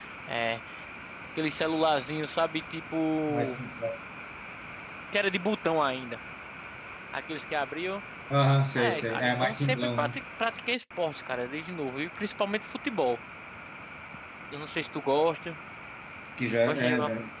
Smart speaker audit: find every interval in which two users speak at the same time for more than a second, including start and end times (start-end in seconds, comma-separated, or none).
8.8-10.2